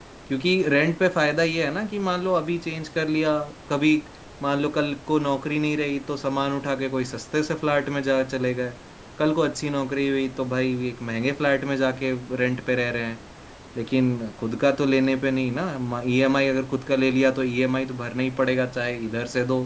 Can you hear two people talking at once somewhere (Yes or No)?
No